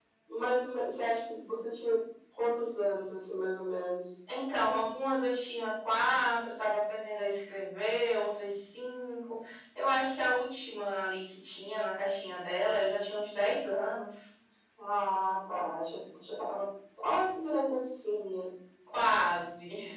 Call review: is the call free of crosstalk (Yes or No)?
Yes